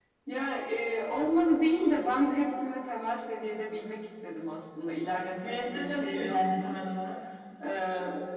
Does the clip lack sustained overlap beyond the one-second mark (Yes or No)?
No